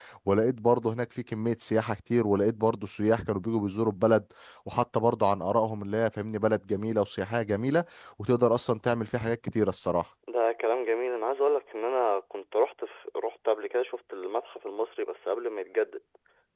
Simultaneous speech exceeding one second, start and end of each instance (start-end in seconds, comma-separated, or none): none